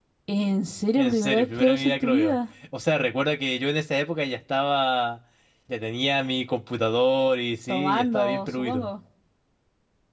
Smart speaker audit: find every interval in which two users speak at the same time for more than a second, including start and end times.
1.0-2.4, 7.7-8.9

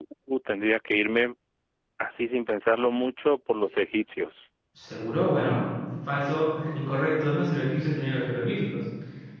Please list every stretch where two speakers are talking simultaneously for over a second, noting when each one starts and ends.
none

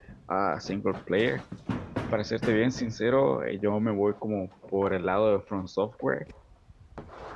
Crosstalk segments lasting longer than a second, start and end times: none

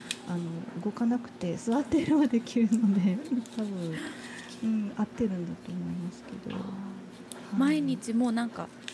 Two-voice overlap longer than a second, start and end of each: none

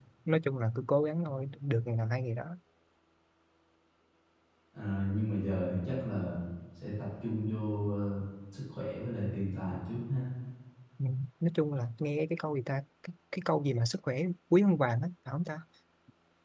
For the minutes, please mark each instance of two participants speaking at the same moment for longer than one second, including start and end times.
none

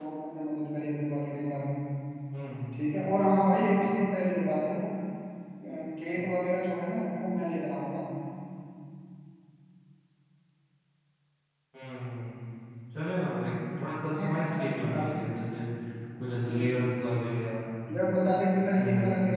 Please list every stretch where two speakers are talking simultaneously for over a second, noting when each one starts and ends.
14.0-15.3

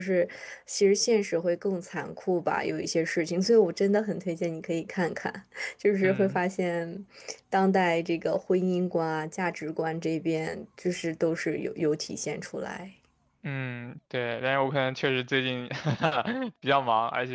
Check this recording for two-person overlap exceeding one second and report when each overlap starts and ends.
none

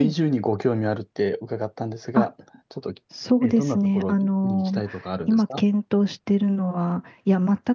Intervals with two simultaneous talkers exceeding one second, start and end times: 3.4-4.8

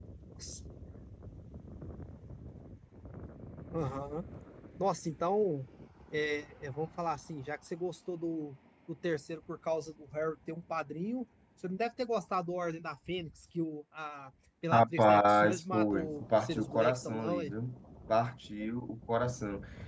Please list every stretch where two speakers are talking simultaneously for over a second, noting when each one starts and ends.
14.7-17.5

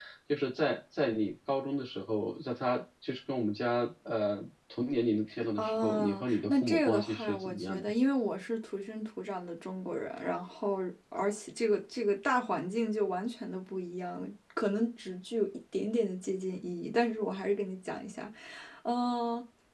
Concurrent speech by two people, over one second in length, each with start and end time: 5.6-7.9

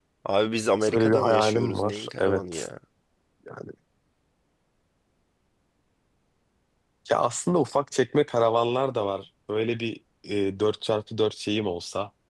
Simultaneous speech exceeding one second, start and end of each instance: 0.9-2.7

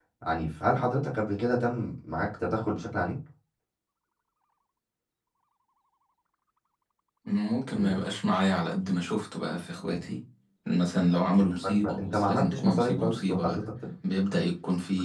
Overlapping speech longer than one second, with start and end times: 11.4-13.6

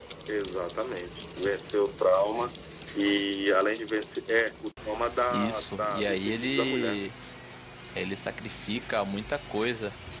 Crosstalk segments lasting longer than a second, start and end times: 5.3-7.1

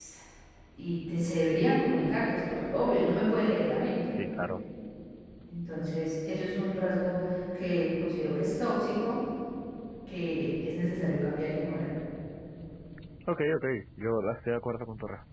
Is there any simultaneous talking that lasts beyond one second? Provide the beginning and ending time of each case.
none

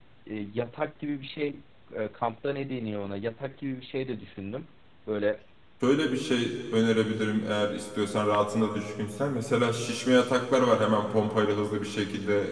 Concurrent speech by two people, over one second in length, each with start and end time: none

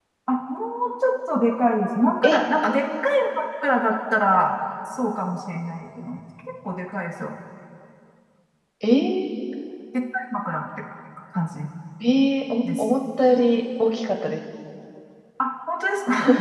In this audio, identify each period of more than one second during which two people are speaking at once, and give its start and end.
none

